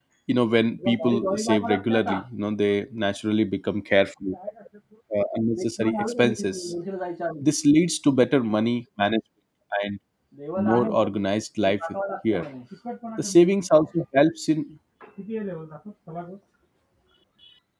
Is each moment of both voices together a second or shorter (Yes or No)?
No